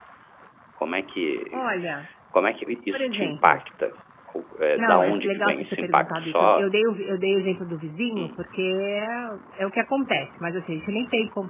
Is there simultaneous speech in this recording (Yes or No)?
Yes